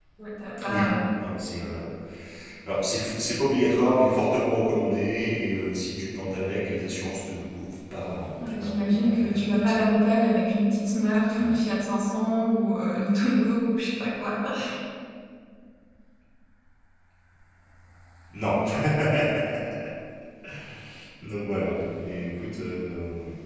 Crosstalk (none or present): present